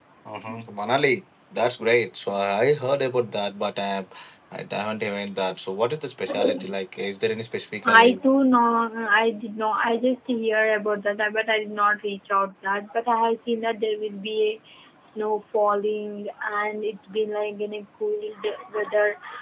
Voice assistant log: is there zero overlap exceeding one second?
Yes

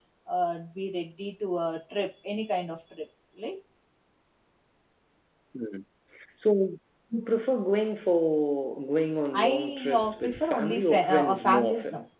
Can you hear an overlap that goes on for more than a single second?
Yes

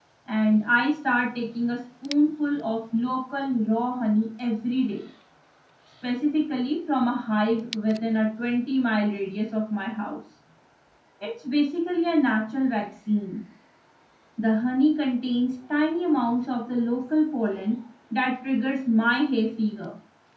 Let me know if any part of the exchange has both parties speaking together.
No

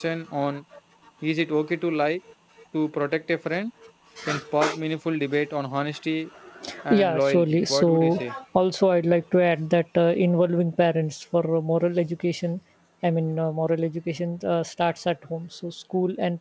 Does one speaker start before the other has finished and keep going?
Yes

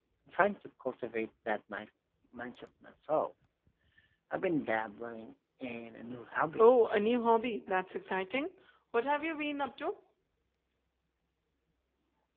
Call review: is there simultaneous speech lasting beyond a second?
No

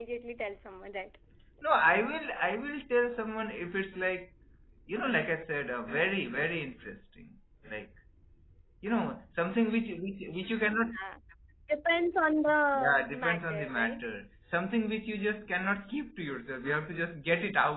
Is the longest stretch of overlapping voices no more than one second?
No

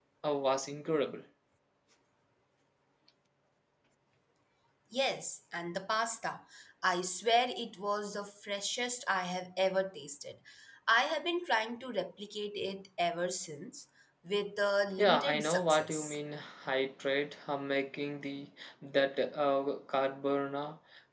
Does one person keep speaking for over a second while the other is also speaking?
Yes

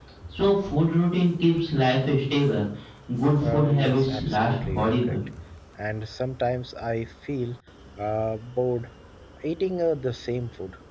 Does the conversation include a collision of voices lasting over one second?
Yes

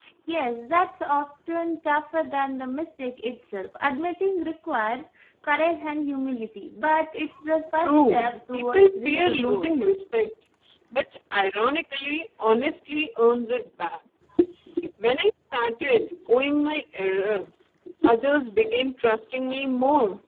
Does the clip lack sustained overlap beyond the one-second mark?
No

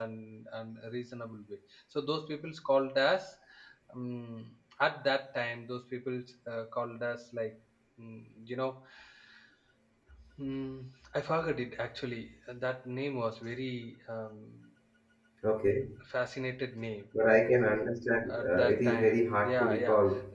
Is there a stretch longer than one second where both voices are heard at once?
Yes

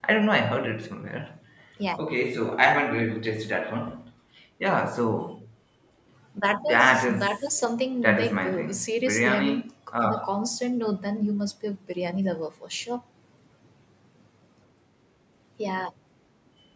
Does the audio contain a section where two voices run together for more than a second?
Yes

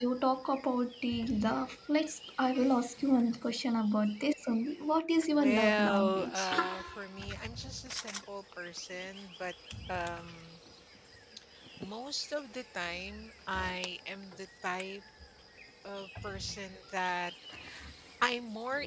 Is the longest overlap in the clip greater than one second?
Yes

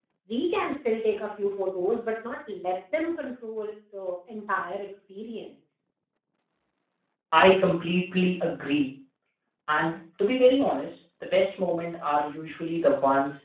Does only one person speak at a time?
Yes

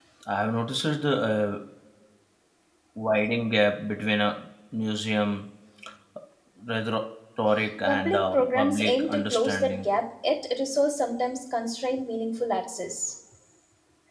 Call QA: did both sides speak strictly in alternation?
No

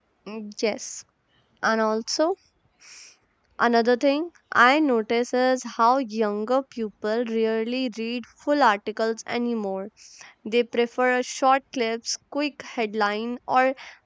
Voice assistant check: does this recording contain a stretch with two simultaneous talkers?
No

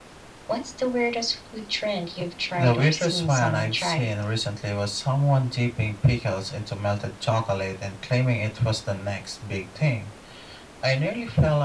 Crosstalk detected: Yes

